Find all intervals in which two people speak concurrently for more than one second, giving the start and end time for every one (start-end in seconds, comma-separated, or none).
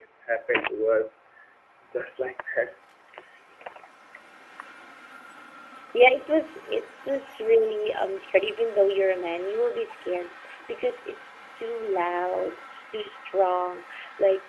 none